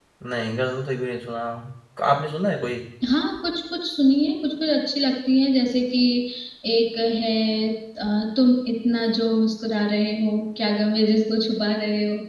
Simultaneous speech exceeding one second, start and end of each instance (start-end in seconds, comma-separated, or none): none